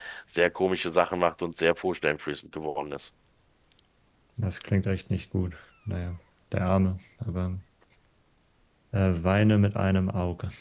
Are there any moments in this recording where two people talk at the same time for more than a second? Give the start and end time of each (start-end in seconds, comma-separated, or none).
none